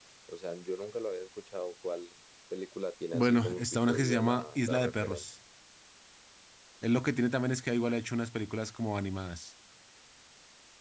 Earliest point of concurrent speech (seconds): 3.1 s

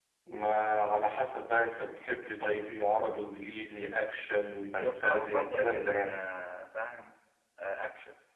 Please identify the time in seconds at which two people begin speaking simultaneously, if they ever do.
4.8 s

